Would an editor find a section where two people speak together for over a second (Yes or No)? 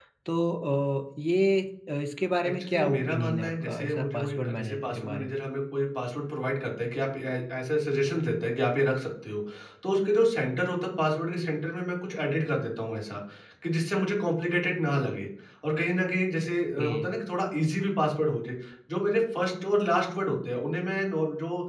Yes